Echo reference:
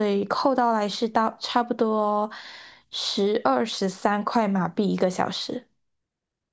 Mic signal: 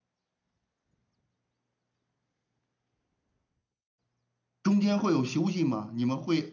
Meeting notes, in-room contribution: present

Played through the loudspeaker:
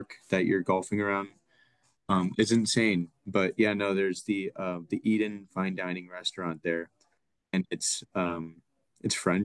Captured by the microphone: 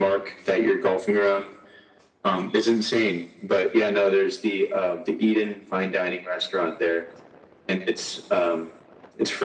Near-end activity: none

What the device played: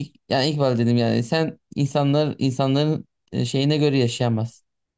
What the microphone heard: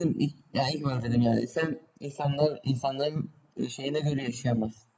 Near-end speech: none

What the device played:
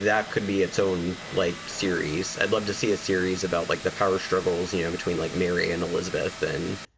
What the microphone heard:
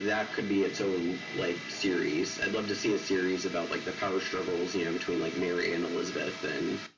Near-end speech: none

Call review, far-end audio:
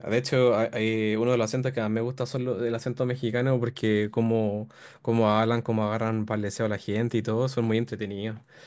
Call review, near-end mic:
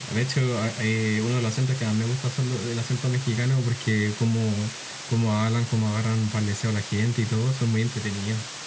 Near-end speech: none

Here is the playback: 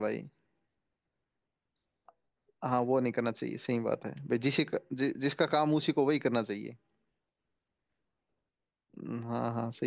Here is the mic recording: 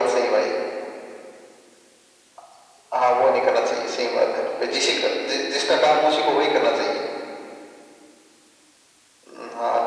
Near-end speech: none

